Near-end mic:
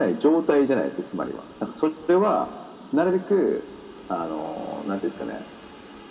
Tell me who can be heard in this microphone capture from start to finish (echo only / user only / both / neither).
echo only